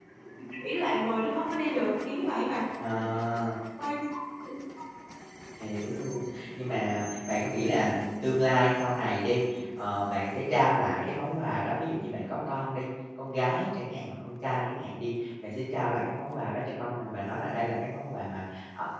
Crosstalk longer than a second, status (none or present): none